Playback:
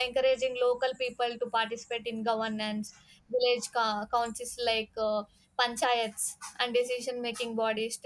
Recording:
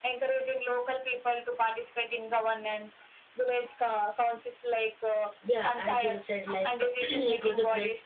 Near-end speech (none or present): present